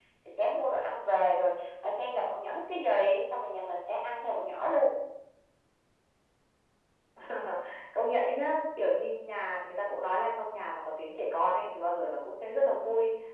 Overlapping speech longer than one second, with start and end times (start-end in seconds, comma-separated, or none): none